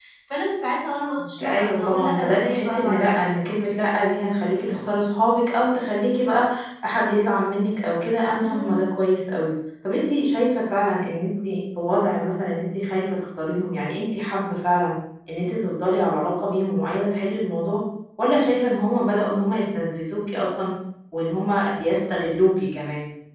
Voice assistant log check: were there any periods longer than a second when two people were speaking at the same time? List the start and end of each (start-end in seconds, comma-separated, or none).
1.4-3.2